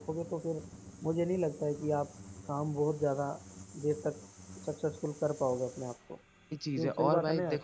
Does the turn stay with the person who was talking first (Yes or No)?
No